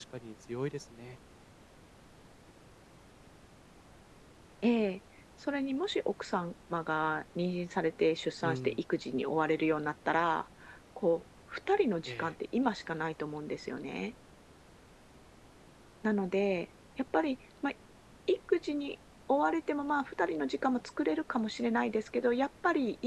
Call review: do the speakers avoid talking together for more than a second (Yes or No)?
Yes